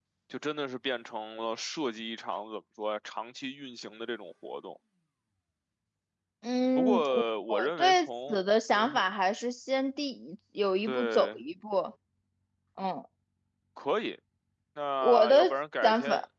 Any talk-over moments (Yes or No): Yes